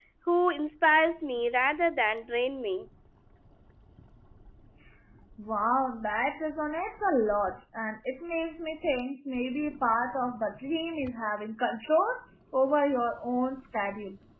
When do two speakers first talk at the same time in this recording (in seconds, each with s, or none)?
none